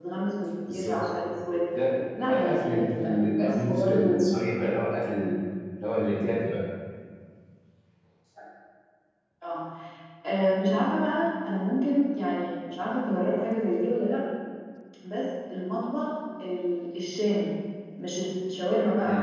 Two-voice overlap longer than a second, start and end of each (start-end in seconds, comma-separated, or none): 2.3-4.1